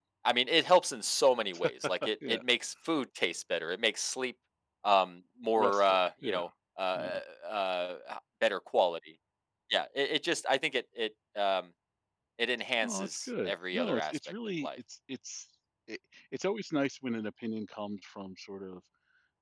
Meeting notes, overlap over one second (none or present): present